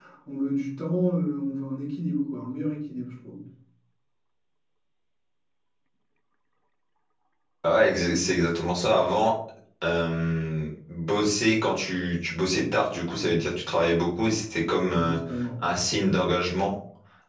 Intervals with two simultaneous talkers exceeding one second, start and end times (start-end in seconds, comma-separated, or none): none